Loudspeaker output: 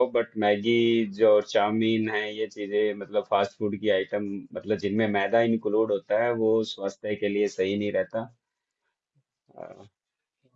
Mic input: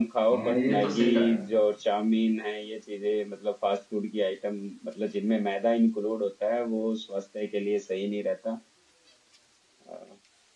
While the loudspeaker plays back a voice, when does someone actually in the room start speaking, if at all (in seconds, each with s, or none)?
0.3 s